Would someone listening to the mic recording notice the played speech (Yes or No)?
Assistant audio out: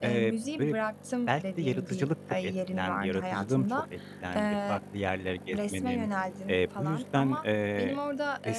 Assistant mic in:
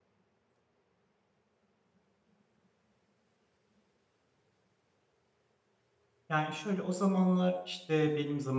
No